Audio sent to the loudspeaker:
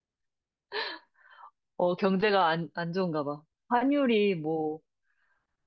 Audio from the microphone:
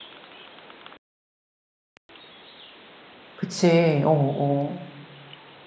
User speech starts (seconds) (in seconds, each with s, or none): 3.3 s